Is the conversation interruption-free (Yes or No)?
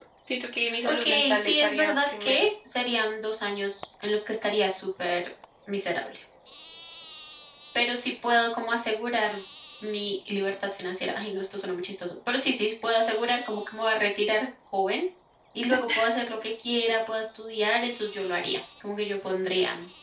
No